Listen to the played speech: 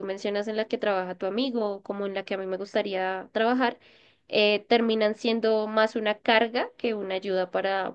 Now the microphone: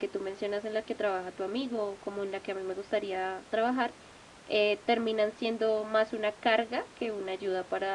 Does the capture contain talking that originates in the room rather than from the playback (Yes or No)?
No